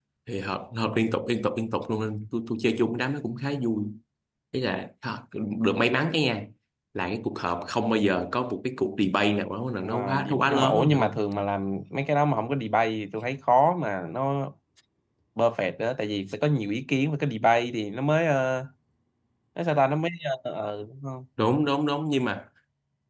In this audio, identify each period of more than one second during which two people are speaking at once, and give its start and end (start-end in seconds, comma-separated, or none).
9.8-11.2